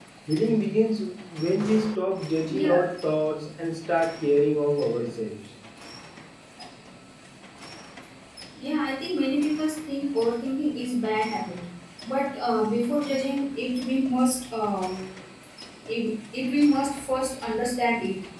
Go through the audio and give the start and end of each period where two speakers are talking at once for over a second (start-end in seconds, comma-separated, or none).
none